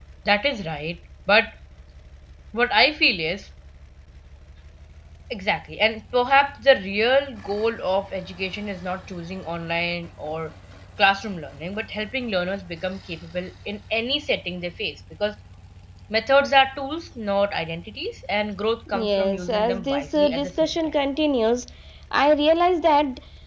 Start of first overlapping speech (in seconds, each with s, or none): 18.9 s